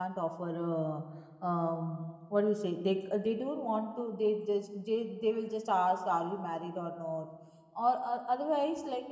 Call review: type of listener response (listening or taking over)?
listening